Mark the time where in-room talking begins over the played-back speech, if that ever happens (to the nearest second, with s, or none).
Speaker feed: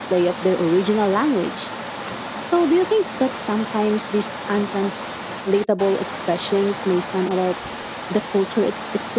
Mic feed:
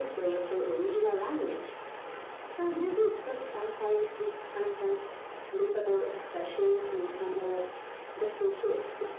none